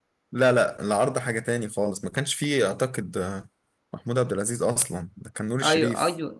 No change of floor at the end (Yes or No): No